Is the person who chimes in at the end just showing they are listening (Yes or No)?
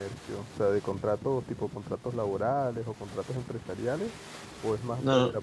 Yes